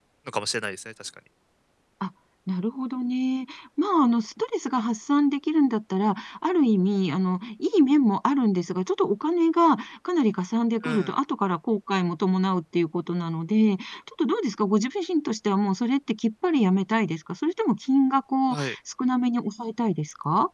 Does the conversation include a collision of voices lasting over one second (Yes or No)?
No